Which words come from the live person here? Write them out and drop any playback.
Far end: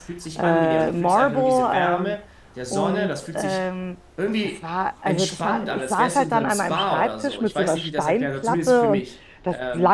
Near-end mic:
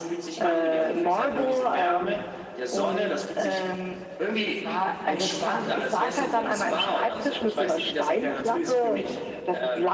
none

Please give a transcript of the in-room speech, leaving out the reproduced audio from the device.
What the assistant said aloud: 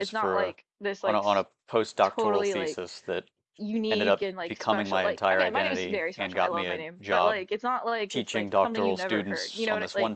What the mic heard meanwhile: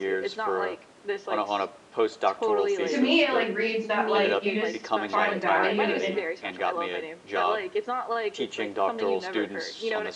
To me, it like reads that like you just find value in

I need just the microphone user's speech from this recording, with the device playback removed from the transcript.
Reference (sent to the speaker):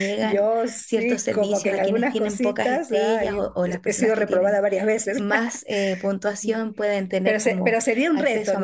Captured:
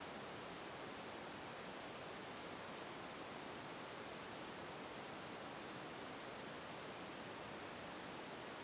none

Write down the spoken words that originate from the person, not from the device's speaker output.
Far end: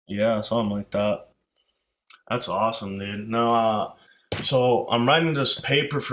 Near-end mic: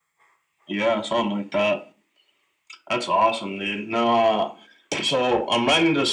none

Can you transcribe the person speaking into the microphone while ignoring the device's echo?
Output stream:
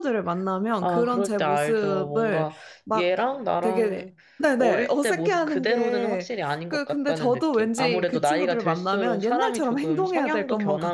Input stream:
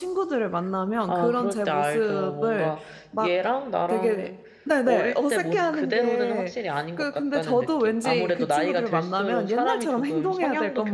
none

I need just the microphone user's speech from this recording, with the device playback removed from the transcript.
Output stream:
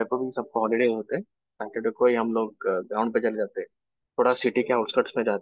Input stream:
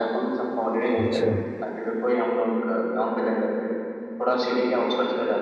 अच्छा

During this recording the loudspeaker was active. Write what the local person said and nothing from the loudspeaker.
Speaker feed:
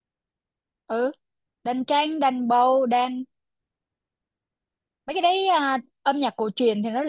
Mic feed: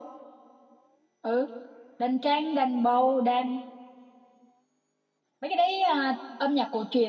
none

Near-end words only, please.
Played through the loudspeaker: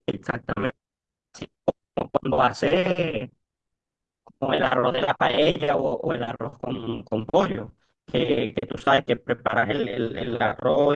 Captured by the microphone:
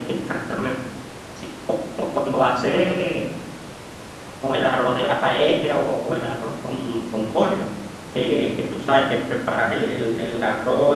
none

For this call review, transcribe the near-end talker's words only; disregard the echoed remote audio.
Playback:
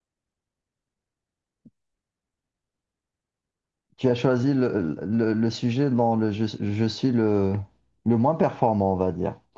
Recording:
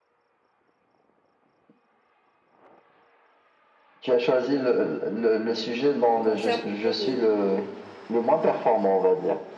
contrairement aux mines.

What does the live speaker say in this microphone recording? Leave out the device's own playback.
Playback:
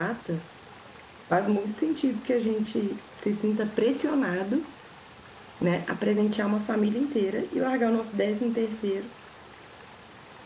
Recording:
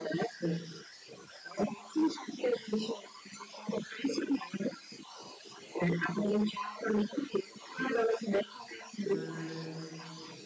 mas

